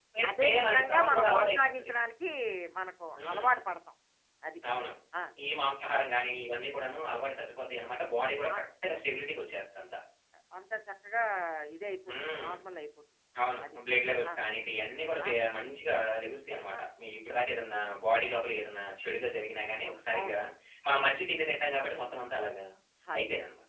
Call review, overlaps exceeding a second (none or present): present